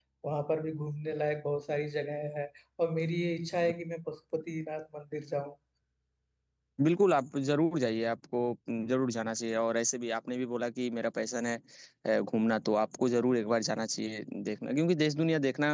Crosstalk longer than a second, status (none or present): none